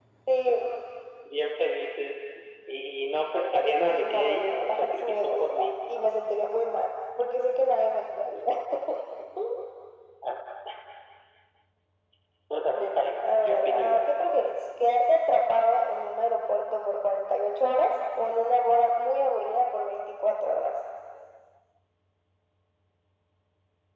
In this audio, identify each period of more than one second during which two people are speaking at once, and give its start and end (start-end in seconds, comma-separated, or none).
3.8-6.1, 12.7-14.1